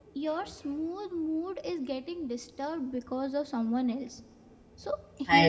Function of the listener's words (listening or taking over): listening